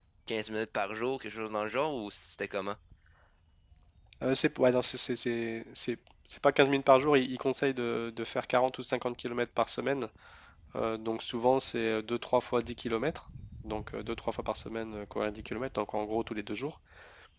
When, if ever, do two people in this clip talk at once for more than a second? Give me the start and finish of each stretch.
none

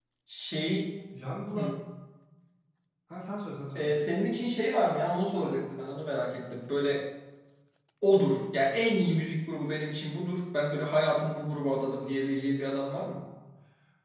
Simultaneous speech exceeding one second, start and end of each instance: none

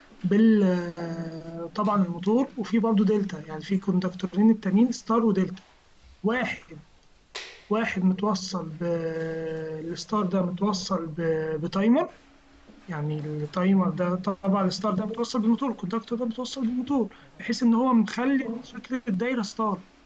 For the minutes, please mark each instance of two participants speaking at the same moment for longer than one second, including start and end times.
none

